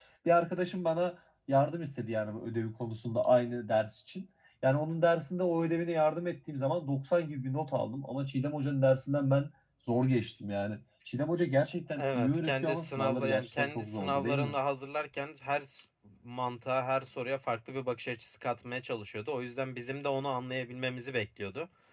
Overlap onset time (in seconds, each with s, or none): 11.9 s